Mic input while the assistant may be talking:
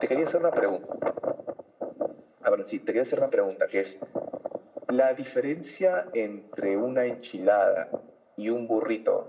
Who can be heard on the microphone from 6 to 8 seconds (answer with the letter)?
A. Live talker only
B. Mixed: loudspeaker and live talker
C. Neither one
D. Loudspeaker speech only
D